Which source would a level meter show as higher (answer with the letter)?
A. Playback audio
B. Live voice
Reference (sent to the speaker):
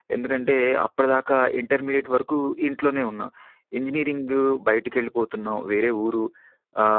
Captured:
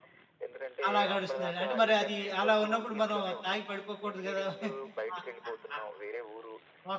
B